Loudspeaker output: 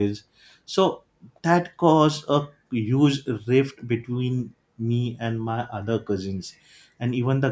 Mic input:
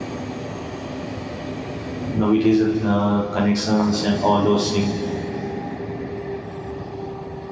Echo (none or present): none